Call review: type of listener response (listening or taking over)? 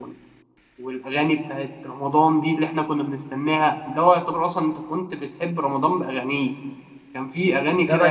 taking over